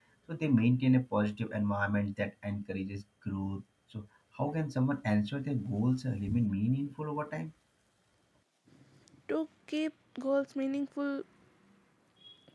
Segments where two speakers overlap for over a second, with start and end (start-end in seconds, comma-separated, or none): none